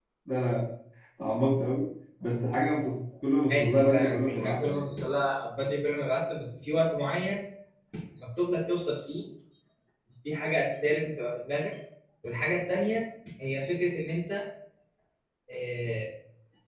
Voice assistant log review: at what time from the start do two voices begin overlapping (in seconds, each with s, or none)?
3.5 s